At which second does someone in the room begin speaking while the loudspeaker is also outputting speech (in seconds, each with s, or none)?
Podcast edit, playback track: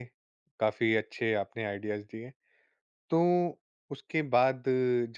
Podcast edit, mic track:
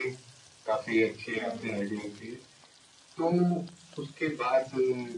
1.4 s